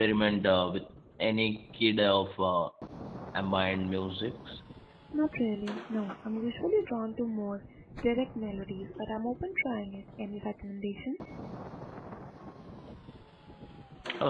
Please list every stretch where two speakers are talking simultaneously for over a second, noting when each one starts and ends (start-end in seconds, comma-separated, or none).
none